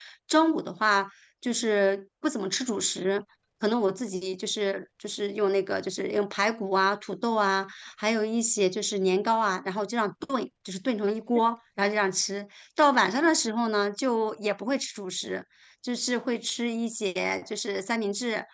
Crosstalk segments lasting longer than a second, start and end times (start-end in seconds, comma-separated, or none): none